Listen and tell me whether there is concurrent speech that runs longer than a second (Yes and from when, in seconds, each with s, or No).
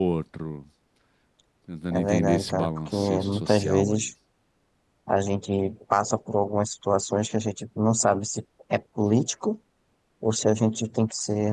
Yes, from 1.9 s